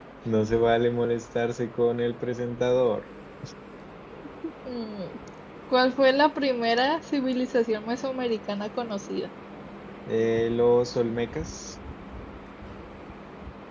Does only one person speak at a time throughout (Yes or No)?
Yes